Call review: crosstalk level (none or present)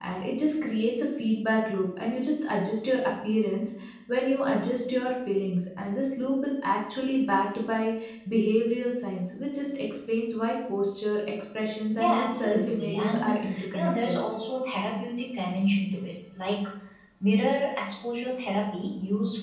present